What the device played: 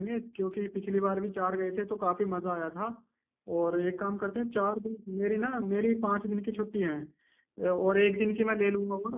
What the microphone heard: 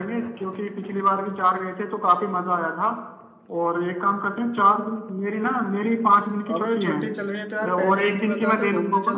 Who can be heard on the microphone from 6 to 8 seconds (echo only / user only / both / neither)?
both